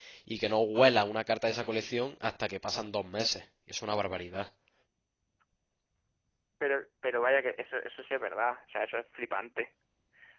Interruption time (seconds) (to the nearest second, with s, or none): none